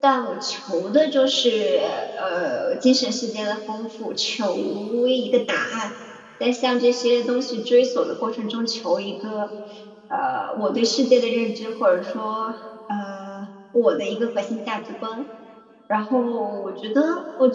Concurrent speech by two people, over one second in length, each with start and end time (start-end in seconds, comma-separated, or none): none